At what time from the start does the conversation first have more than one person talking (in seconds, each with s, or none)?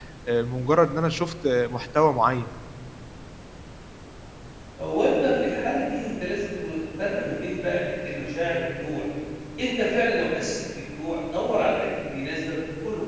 none